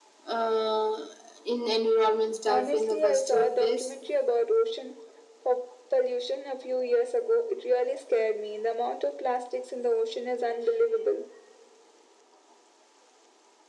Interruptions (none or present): present